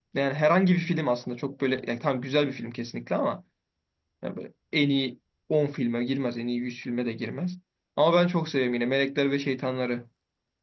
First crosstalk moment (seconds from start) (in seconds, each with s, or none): none